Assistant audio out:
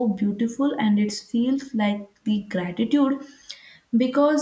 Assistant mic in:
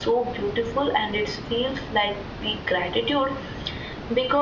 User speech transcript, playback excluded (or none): none